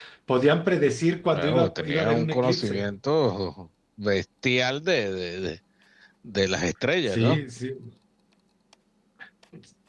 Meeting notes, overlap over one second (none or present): present